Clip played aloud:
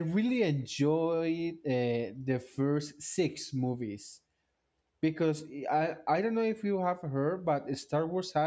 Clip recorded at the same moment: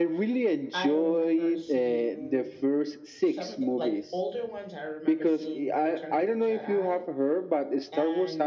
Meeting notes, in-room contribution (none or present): present